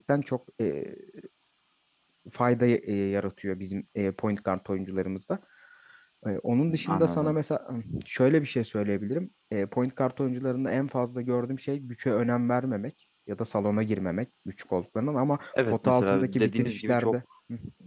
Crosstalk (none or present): present